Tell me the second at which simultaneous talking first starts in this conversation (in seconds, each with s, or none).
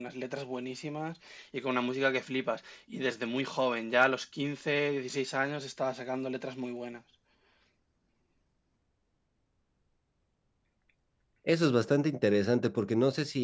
none